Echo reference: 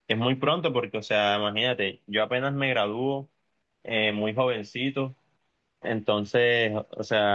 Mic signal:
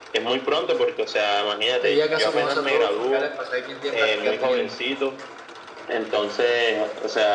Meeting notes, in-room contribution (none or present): present